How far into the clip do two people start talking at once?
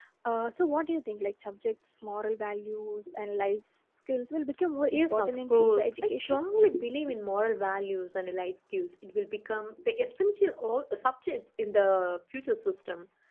4.9 s

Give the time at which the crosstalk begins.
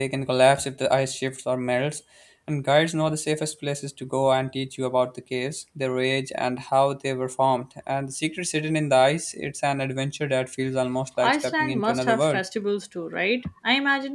11.2 s

